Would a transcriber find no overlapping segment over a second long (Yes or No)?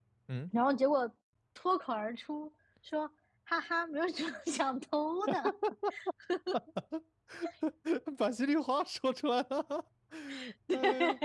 Yes